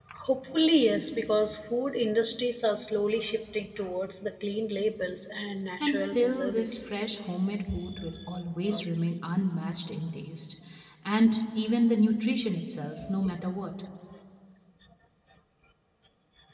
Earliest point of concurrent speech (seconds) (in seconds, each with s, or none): 5.8 s